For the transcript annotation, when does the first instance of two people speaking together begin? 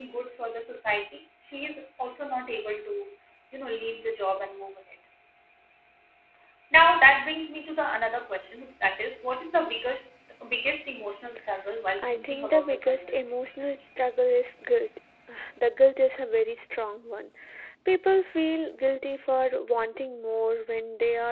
12.0 s

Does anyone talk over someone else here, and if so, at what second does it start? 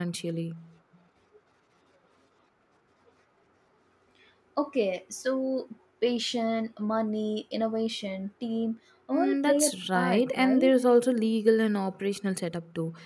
9.1 s

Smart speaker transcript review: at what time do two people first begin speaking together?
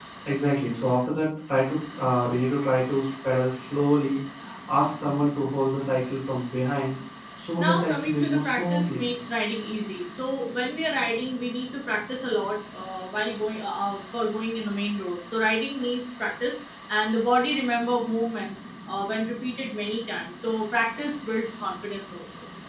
7.6 s

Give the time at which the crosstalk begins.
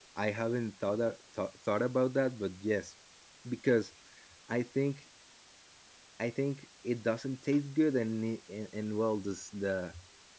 none

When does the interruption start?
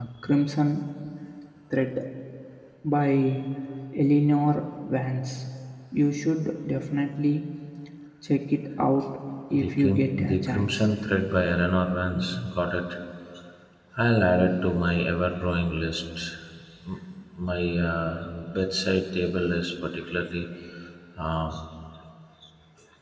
9.5 s

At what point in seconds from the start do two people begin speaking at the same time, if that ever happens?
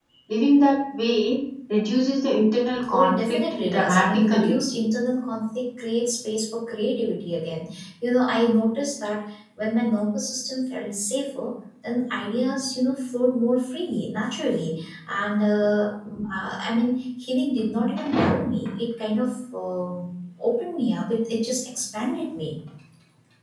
2.9 s

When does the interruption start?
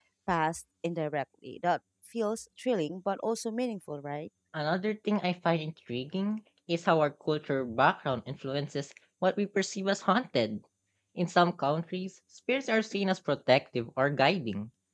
none

